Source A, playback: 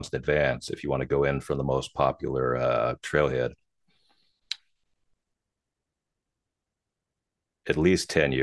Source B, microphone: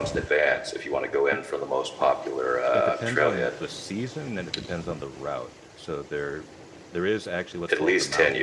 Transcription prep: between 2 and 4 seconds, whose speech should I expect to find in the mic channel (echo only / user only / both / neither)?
both